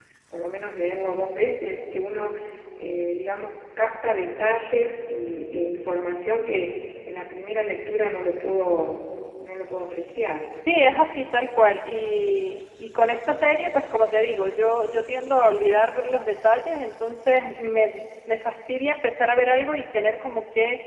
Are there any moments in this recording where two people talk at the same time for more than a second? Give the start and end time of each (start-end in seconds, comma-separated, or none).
none